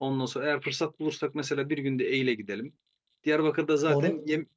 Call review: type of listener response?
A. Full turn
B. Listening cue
B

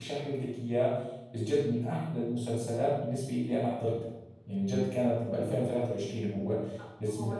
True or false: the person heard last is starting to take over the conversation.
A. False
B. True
B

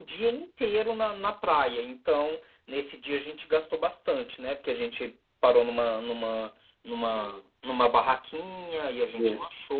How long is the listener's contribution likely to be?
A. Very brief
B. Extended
A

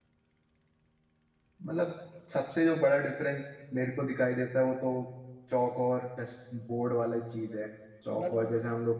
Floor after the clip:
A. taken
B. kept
B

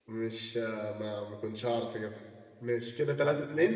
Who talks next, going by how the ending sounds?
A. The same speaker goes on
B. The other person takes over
B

